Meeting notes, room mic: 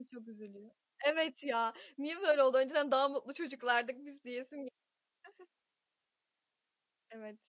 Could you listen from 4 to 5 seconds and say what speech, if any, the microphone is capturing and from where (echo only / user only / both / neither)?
user only